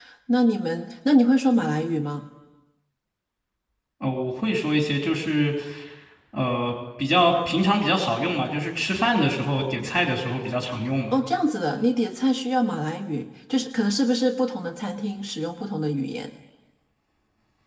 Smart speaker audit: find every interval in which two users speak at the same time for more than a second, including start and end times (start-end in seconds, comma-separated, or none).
none